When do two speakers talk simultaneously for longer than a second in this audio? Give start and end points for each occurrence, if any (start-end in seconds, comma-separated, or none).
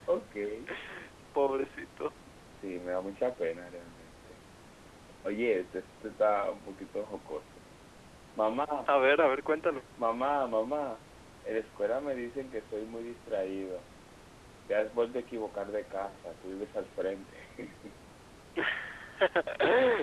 none